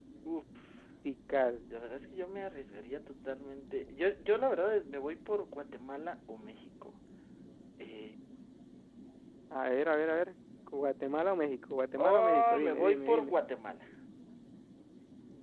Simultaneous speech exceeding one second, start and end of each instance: 12.0-13.3

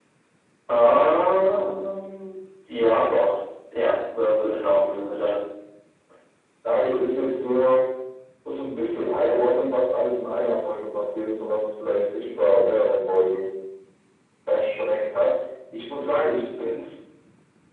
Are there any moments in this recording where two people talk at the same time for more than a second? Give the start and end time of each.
none

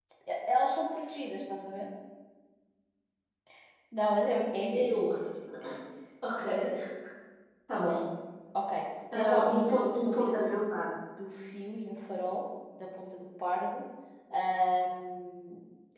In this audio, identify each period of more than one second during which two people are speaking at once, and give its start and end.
9.2-10.6

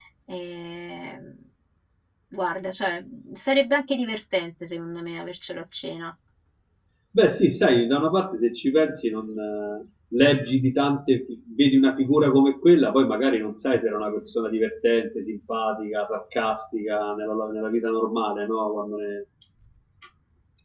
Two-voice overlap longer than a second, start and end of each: none

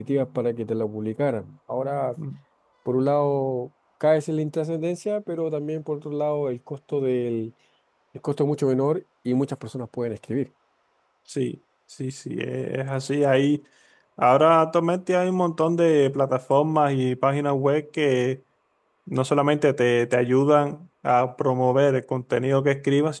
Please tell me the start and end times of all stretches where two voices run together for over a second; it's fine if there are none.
none

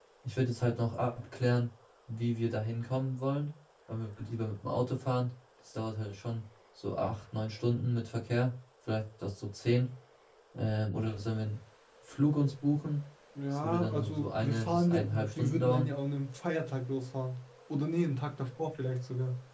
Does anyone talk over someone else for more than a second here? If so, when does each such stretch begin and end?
13.5-15.9

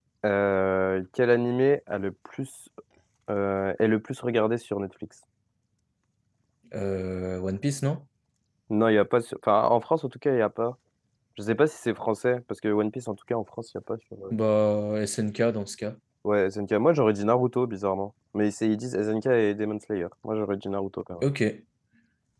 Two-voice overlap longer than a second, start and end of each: none

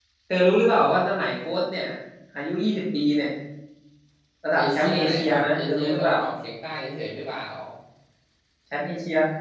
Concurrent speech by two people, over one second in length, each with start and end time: 4.6-6.2

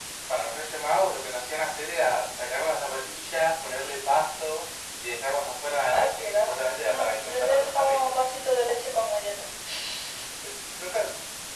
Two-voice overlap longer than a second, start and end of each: 5.9-8.2

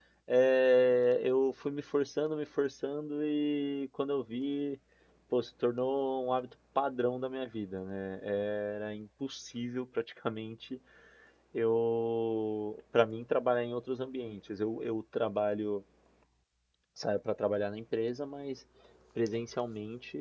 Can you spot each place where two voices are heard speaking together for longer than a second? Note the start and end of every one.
none

